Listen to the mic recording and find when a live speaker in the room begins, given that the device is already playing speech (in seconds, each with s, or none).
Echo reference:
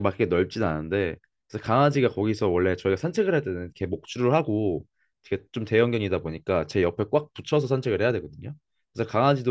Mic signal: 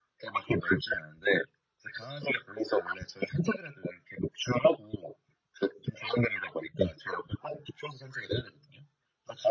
none